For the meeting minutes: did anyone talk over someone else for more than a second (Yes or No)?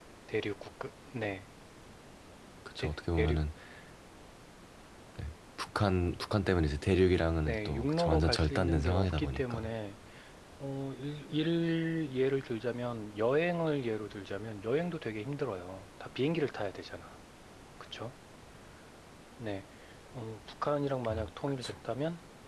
Yes